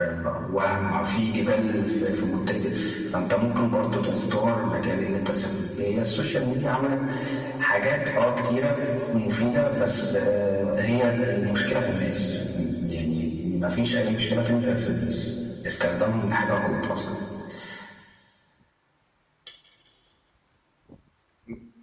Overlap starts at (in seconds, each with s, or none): none